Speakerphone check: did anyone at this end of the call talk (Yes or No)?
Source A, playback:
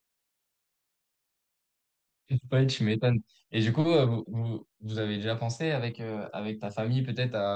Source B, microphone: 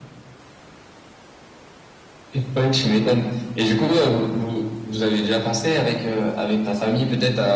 No